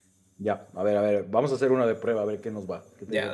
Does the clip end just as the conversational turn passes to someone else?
Yes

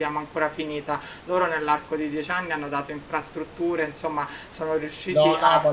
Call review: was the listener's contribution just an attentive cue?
No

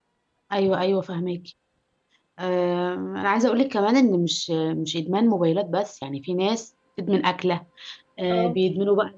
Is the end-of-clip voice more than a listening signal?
No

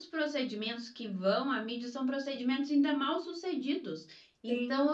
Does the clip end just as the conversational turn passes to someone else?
No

